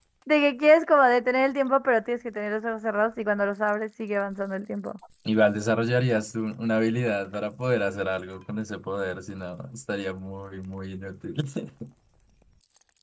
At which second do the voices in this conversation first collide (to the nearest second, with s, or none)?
none